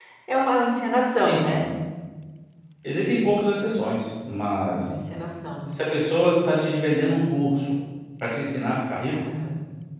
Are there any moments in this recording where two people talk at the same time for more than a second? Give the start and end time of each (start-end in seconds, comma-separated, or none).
none